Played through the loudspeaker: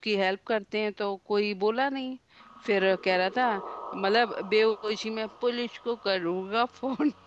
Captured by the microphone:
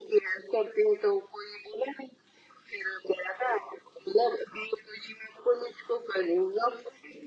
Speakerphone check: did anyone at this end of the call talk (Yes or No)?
No